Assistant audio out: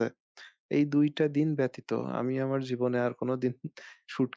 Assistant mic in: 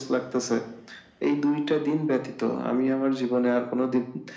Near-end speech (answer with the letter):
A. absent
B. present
A